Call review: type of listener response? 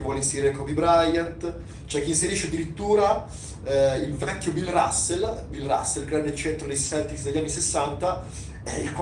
listening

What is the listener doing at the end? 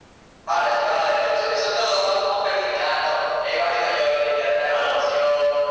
listening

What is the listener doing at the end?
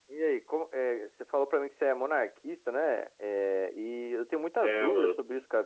listening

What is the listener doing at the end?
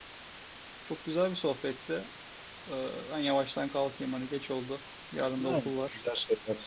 taking over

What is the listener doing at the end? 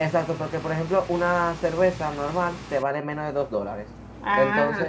listening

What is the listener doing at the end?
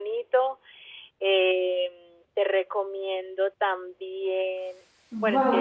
taking over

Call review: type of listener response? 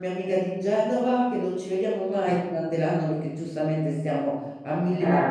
listening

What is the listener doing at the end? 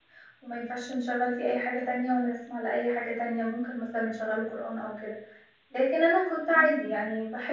listening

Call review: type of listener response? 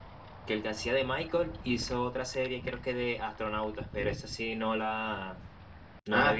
listening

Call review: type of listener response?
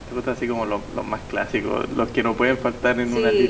taking over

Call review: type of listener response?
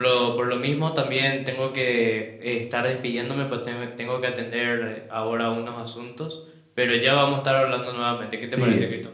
taking over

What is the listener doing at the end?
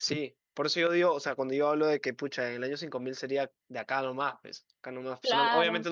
listening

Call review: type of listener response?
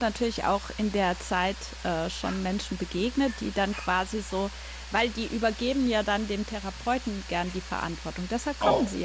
taking over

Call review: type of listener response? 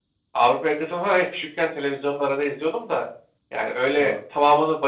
listening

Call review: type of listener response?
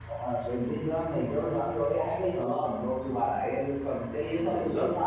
listening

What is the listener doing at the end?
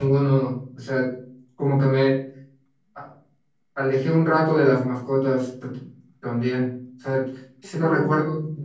listening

